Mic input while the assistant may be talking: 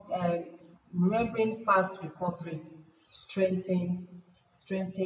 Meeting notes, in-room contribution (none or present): none